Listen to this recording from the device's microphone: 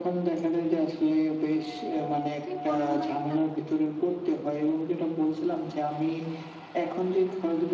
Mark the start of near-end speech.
2.4 s

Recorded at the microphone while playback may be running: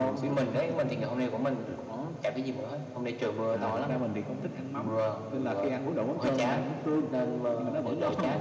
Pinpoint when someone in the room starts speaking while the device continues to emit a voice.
none

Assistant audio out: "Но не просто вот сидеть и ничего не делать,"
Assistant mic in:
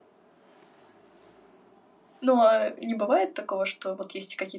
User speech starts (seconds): 2.2 s

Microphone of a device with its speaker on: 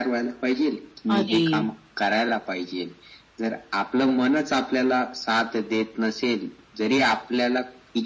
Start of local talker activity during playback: 1.1 s

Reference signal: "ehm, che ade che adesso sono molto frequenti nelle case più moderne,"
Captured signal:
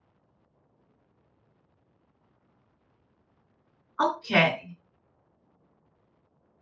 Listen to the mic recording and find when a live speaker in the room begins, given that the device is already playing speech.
4.0 s

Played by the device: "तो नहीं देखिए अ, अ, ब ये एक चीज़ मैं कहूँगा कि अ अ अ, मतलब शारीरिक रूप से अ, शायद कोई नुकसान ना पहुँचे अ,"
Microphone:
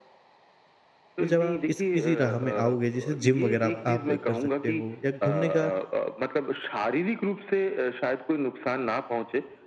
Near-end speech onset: 1.2 s

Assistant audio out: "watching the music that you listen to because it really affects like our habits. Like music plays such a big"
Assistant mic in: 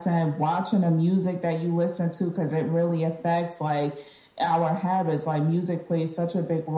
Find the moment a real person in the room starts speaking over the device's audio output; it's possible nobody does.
none

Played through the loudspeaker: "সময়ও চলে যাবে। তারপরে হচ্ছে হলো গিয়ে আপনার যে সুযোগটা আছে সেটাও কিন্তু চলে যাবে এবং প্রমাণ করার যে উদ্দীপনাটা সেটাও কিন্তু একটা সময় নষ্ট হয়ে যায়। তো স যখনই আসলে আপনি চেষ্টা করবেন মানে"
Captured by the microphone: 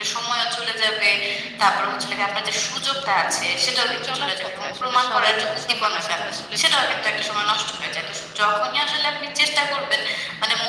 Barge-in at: 3.7 s

